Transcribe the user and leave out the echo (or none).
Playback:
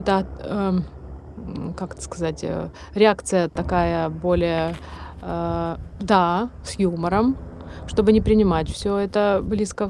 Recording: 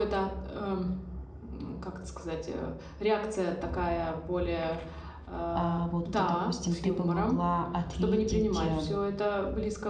а, вот, допустим, ты бы могла ответить, э,